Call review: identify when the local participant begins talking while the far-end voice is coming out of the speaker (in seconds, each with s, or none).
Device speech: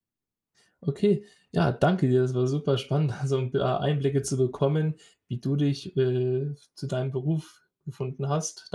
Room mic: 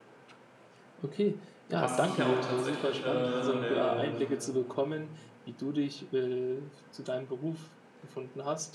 1.8 s